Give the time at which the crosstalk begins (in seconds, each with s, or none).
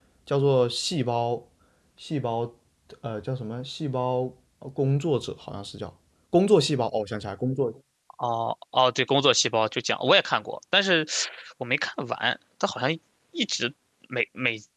none